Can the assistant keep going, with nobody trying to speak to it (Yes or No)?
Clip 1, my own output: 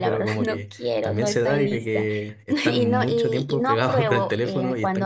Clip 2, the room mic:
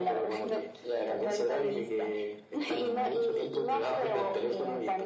Yes